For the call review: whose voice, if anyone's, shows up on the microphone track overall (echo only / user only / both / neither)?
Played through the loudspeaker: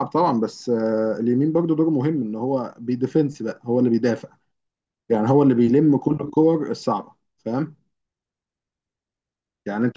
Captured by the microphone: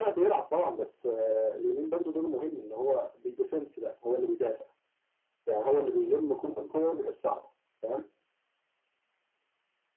echo only